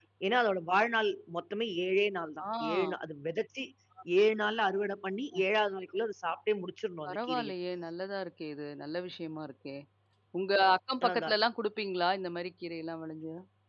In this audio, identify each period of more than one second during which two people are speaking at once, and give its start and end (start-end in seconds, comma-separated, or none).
none